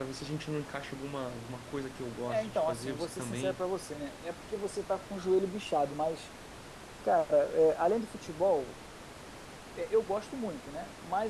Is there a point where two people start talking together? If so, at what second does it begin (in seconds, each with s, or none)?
2.3 s